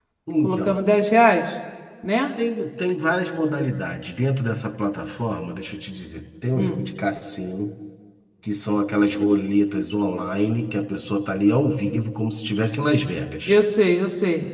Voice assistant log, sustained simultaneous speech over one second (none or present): none